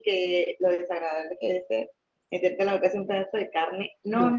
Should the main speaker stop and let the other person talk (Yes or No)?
No